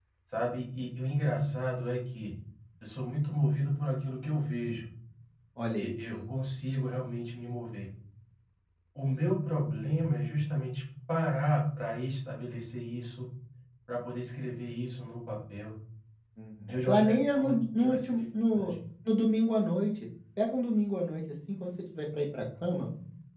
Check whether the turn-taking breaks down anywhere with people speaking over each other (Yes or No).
Yes